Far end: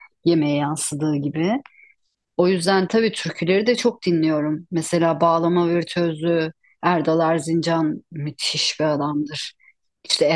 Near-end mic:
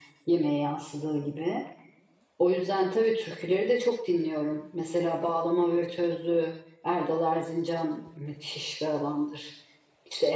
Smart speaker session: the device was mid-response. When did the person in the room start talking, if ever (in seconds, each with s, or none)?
none